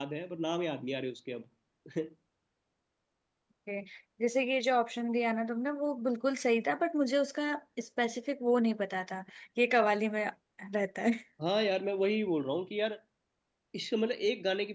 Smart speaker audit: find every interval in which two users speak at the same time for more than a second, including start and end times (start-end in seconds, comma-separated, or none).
none